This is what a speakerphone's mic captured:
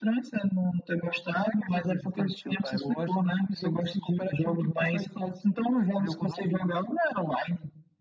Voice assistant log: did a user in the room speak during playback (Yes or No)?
No